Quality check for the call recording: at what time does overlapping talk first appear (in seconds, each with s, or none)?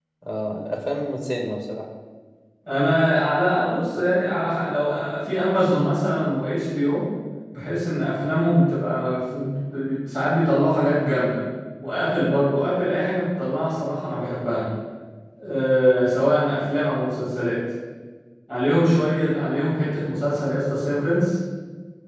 none